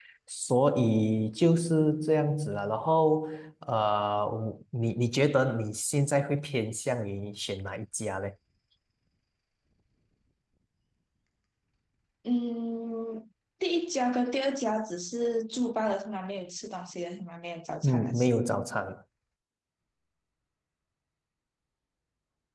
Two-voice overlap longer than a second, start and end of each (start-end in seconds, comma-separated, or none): none